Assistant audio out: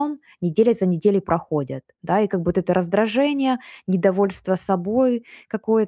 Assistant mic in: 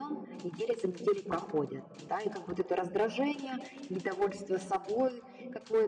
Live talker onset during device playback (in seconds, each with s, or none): none